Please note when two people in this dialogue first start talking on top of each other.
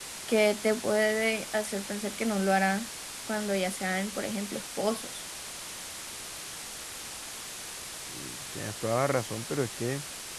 none

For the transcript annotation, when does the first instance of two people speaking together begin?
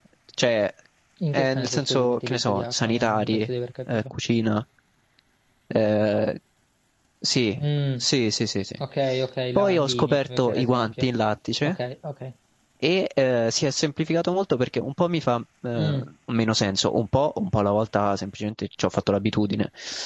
1.3 s

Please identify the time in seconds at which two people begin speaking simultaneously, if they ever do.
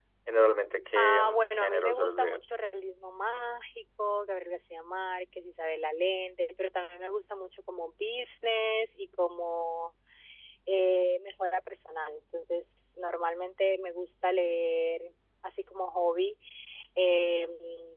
1.0 s

